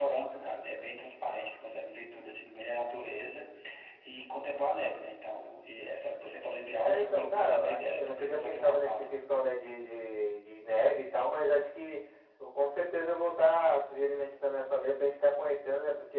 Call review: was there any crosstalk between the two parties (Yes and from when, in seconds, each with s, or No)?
Yes, from 6.9 s